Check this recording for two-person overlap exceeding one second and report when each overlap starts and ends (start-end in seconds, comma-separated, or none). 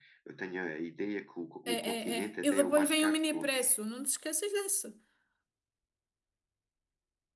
1.7-3.6